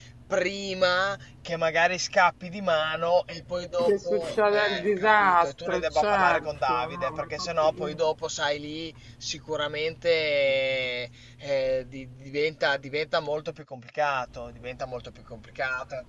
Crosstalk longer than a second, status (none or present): present